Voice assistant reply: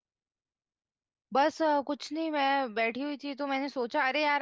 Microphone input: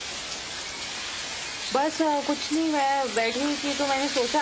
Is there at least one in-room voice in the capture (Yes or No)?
No